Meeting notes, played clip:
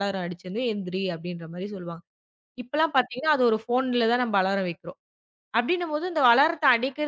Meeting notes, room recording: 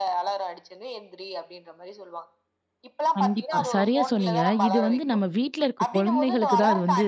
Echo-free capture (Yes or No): No